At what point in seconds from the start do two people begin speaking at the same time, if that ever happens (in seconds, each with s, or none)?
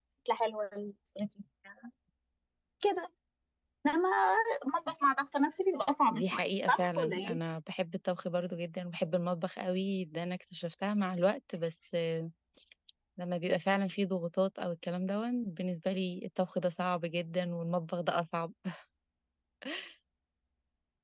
6.1 s